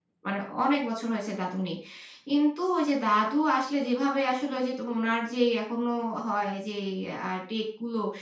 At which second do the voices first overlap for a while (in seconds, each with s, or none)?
none